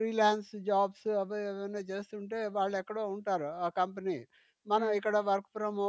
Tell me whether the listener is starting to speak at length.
No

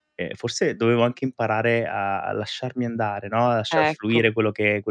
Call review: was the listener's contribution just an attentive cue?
Yes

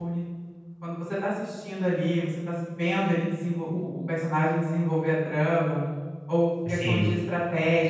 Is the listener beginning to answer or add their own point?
No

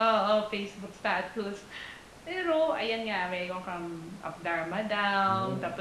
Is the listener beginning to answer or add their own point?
No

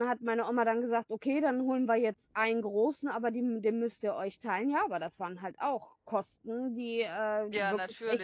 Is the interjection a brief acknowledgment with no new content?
Yes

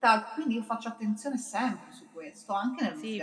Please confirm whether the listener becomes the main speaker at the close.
Yes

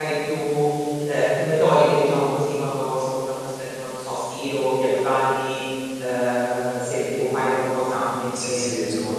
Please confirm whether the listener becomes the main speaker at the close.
Yes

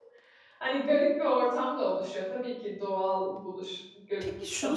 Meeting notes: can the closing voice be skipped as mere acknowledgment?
No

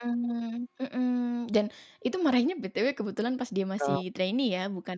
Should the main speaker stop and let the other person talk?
No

